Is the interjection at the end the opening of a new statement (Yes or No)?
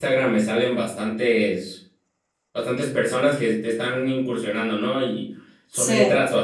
No